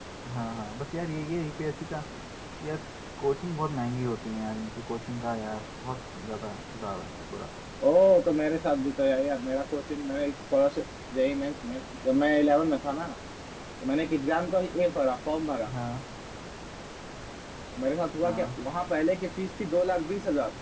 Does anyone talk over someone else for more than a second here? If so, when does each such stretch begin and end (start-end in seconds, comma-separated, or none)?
none